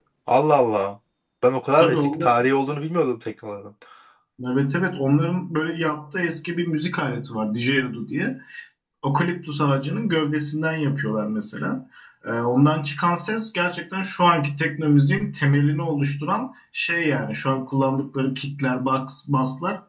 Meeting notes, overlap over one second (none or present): none